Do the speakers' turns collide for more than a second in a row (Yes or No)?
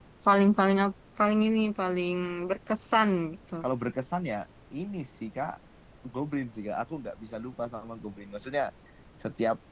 No